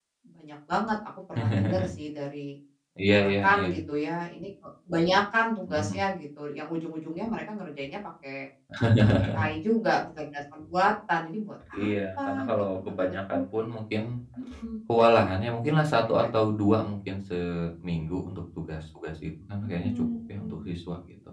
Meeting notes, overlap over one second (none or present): present